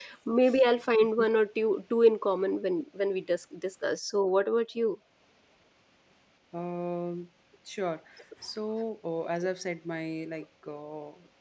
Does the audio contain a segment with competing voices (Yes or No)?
No